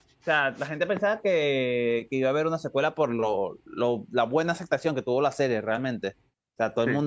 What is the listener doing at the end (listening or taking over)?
listening